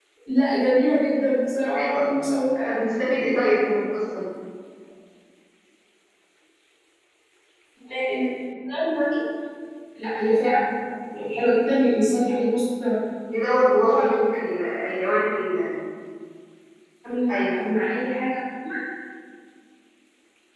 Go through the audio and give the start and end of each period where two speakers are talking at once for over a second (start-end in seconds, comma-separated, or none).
none